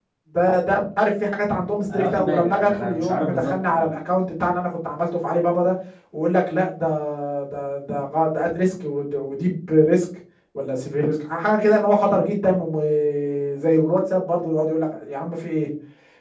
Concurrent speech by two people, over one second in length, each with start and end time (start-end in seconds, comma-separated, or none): 1.9-3.9